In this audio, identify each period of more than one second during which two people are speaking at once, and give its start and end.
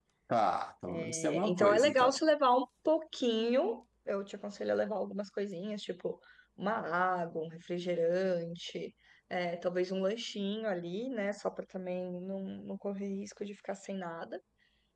1.0-2.2

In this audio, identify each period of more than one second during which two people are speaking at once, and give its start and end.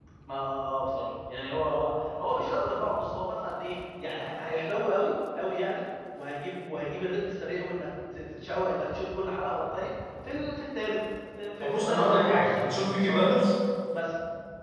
11.6-13.3

